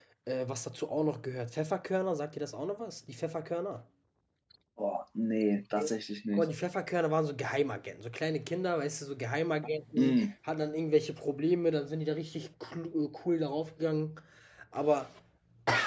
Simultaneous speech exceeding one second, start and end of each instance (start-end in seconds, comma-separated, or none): none